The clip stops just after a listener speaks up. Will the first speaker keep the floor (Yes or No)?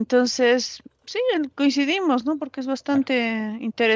Yes